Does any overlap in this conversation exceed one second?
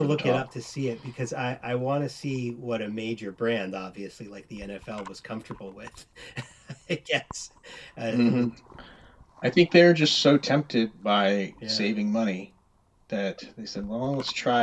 No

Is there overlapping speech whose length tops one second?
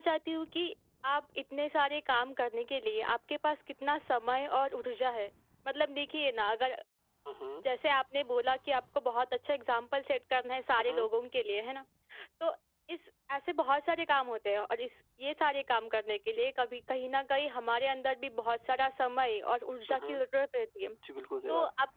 No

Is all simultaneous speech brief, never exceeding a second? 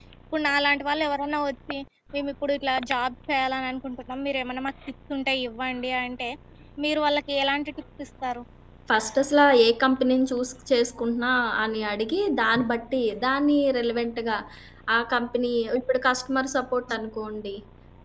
Yes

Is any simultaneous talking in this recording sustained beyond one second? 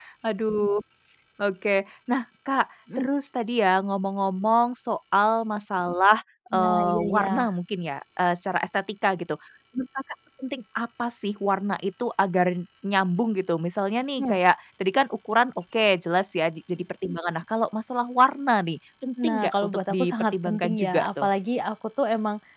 Yes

